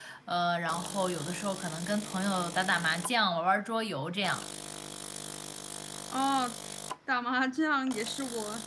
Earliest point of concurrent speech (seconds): none

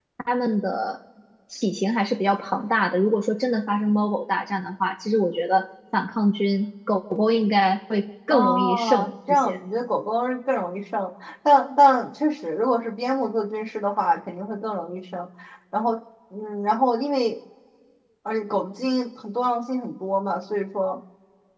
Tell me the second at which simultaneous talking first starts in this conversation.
8.3 s

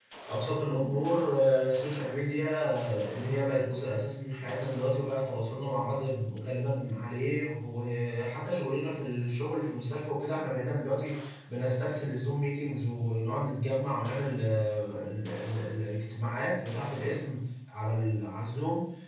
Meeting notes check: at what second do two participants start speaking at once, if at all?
none

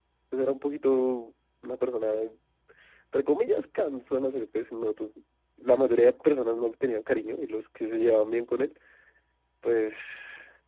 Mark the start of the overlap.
none

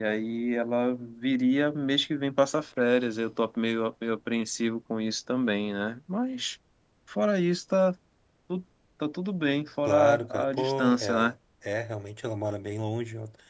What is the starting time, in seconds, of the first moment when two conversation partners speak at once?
9.8 s

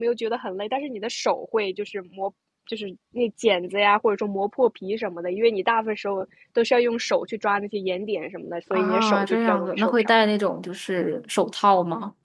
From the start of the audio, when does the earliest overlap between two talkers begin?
8.7 s

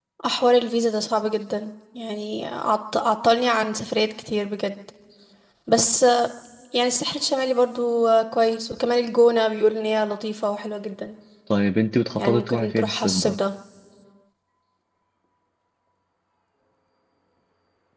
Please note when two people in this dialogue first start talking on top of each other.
12.2 s

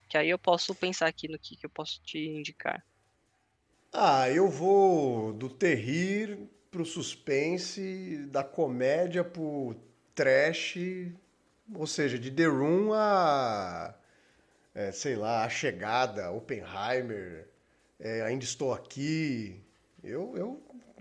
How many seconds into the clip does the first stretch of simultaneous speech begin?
none

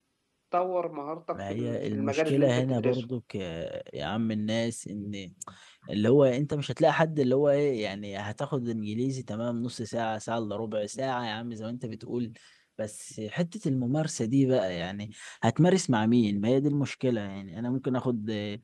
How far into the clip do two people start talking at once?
1.3 s

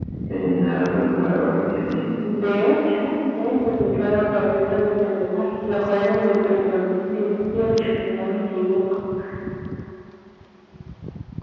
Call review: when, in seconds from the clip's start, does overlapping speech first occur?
none

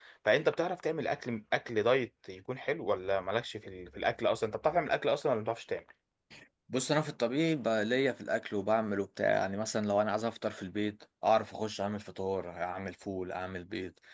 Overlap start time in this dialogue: none

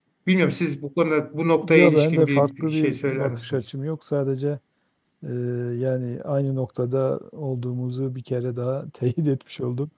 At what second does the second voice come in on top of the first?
1.6 s

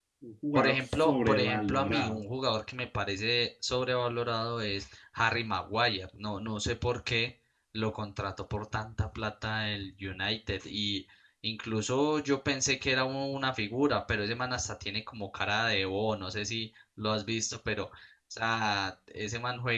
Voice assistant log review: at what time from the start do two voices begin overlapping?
0.6 s

